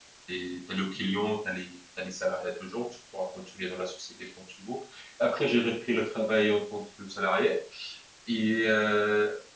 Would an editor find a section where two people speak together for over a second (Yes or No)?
No